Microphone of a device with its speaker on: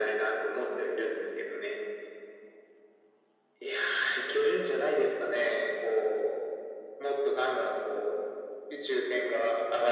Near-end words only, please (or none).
none